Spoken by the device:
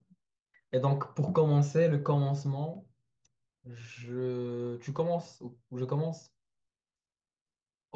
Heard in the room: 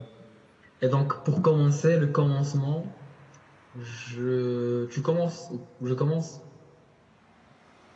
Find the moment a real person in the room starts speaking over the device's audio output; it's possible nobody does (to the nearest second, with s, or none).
none